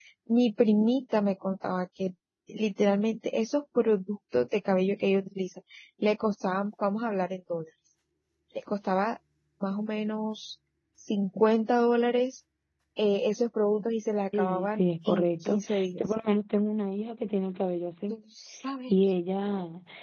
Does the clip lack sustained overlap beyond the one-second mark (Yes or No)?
No